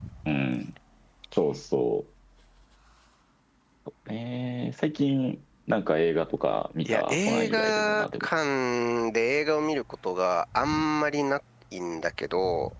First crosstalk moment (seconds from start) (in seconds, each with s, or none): 6.8 s